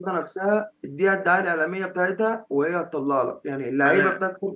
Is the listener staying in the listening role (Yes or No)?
Yes